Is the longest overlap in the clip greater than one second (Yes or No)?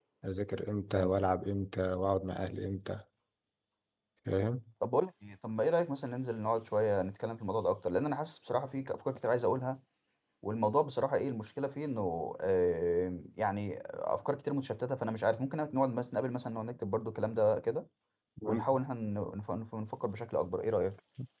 No